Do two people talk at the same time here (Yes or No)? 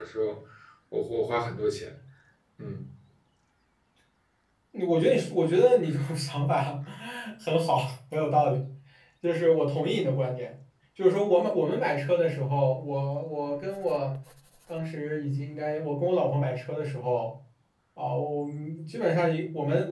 No